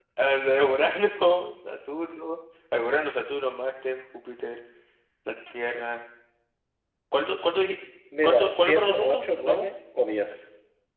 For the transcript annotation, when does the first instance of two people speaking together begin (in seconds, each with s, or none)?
8.2 s